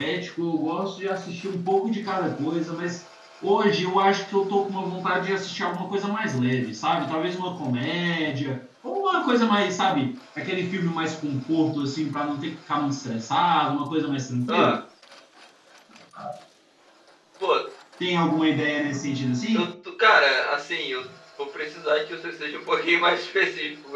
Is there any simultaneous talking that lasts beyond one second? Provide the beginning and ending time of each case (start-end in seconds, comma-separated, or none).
none